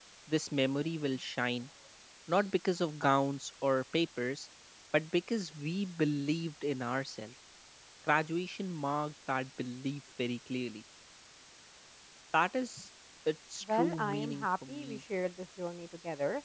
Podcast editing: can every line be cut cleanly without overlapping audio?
No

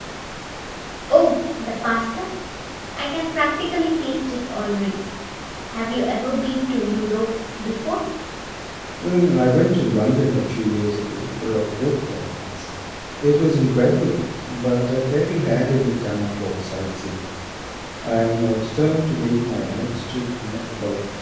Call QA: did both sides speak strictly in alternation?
Yes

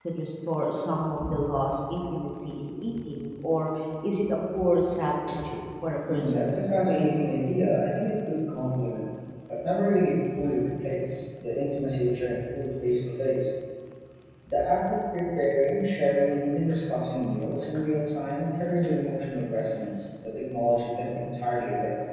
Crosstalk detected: Yes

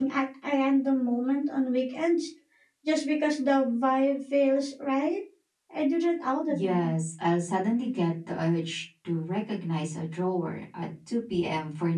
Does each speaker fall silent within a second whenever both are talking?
Yes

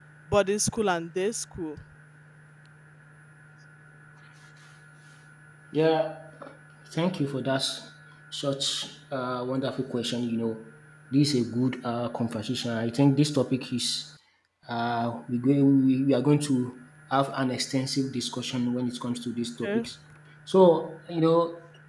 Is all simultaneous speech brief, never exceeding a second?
Yes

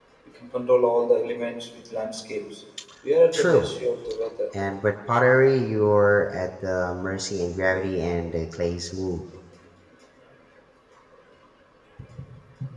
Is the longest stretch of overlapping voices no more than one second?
Yes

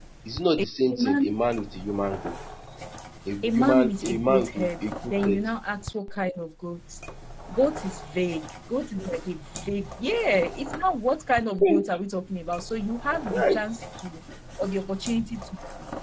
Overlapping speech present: Yes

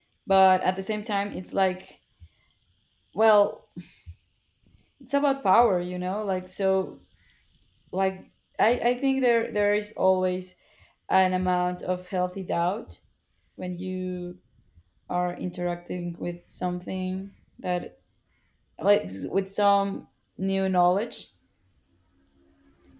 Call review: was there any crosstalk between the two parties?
No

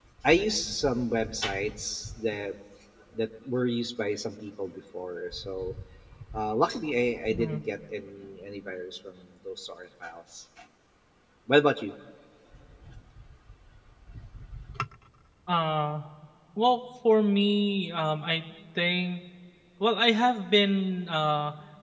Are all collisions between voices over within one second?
Yes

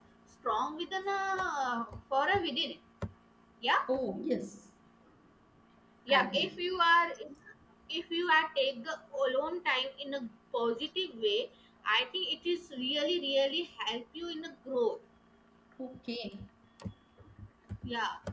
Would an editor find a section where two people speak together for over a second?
No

